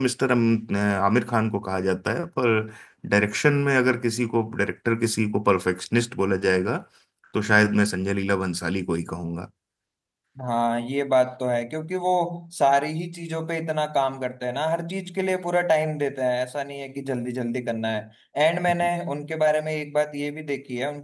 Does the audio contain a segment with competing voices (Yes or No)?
No